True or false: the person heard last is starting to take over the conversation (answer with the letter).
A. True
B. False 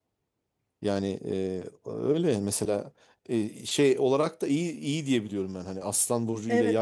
A